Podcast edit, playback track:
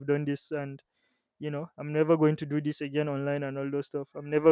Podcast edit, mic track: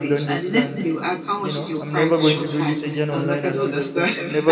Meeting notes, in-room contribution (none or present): present